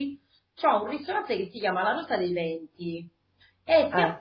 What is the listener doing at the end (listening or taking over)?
listening